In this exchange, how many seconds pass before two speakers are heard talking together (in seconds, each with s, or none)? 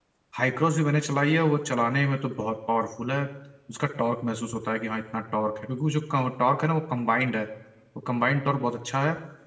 none